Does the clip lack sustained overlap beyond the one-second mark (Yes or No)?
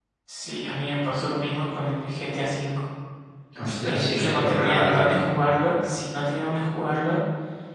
No